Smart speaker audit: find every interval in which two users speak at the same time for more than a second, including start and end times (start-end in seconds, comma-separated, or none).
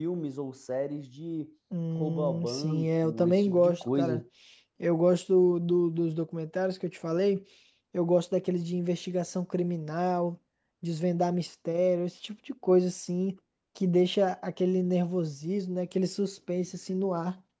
1.9-4.2